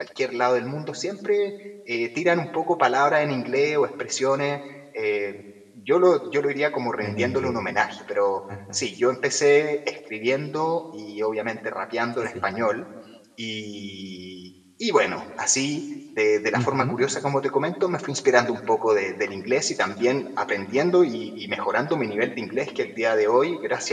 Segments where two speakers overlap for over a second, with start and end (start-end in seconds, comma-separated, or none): none